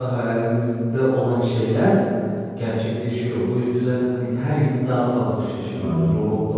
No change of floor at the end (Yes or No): Yes